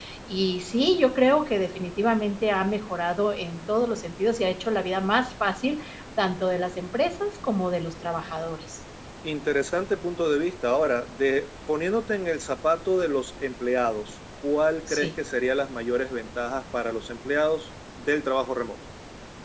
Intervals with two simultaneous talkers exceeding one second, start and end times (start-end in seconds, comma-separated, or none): none